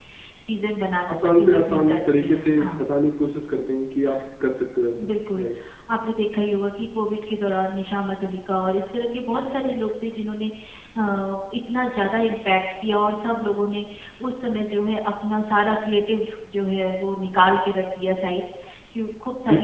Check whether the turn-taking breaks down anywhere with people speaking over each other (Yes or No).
Yes